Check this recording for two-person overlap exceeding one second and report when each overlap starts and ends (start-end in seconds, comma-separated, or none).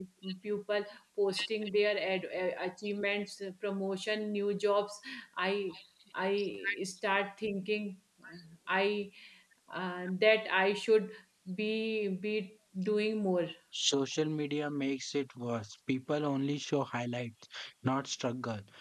none